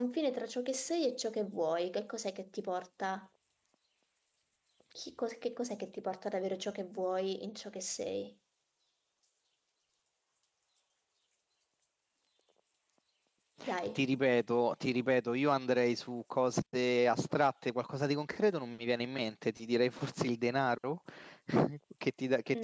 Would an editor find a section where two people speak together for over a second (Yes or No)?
No